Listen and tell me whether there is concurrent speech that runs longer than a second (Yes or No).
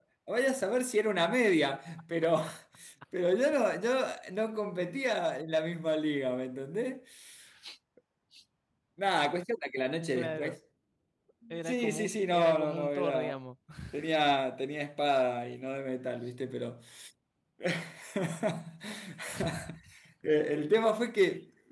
Yes